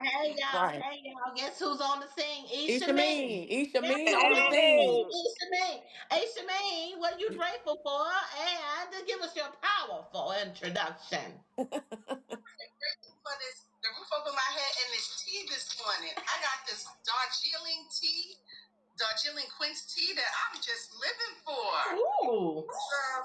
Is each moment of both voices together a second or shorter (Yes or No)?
No